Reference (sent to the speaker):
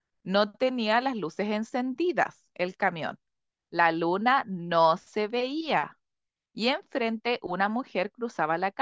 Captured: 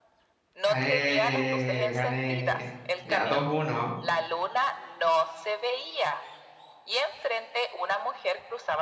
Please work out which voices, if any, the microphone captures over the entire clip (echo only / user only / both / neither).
both